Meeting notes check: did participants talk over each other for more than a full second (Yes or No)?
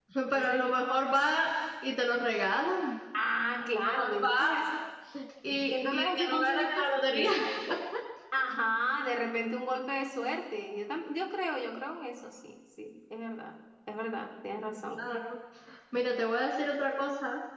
Yes